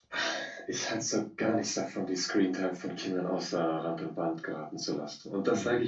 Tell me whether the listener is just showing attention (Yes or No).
Yes